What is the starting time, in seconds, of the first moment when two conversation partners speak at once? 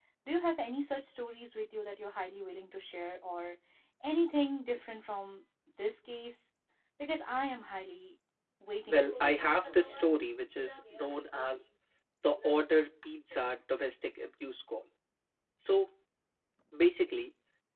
9 s

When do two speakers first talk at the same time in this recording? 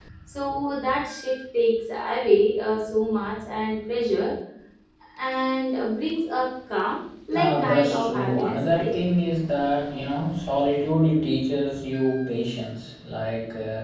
7 s

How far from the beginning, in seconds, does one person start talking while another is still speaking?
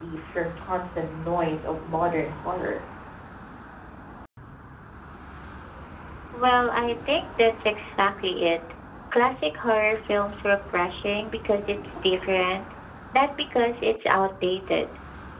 none

